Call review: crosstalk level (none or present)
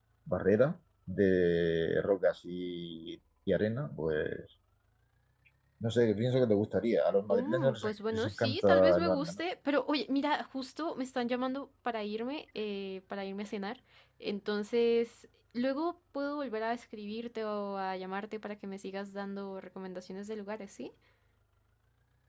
present